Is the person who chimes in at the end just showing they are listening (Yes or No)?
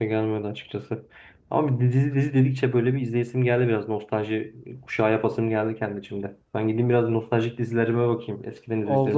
No